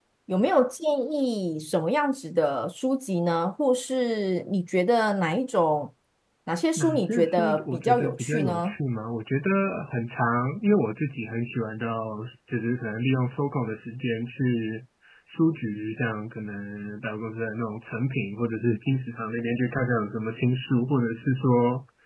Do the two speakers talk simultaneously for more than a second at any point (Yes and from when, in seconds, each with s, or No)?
Yes, from 6.8 s